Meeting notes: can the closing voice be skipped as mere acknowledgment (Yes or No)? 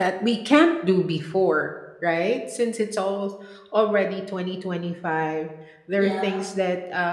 Yes